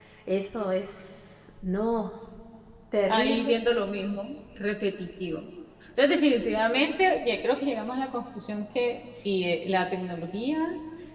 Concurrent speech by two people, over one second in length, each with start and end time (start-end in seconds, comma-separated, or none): none